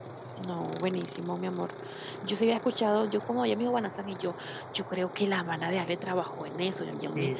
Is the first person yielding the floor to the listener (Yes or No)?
No